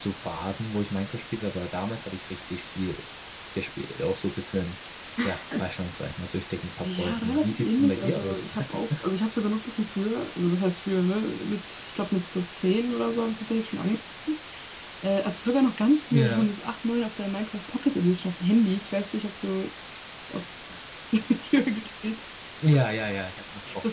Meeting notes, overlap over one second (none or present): present